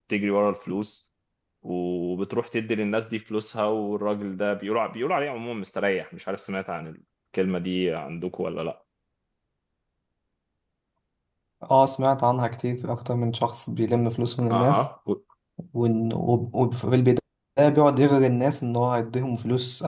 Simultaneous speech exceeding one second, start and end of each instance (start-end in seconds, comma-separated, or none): none